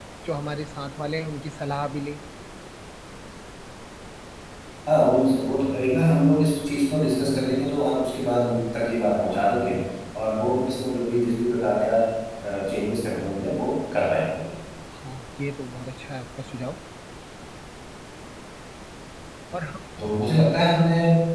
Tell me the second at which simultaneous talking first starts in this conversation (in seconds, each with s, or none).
none